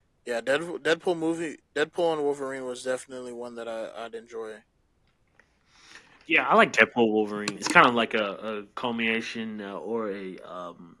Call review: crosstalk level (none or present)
none